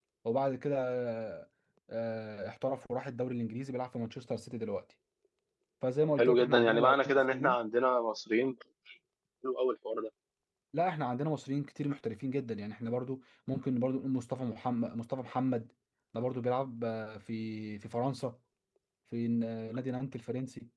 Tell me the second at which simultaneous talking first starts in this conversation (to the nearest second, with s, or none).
6 s